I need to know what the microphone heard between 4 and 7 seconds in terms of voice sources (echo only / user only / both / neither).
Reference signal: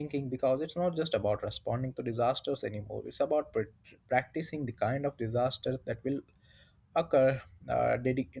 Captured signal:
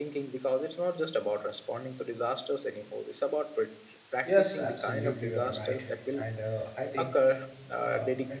both